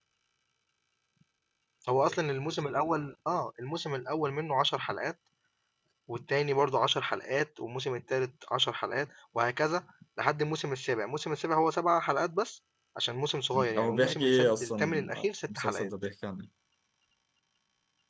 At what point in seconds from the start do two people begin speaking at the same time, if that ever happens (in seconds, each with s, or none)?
13.8 s